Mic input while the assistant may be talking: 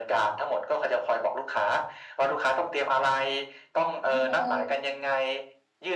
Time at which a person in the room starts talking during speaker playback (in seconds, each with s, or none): 4.0 s